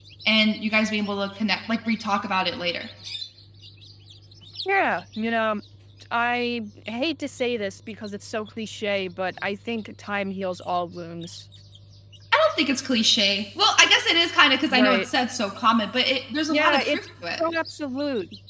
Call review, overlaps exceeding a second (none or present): none